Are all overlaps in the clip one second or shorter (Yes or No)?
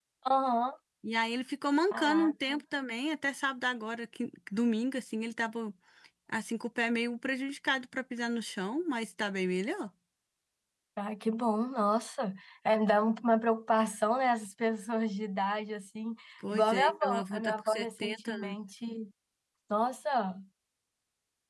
No